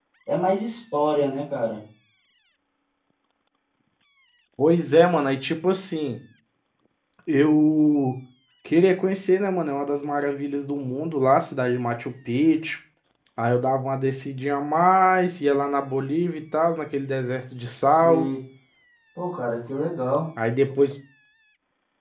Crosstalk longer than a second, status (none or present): none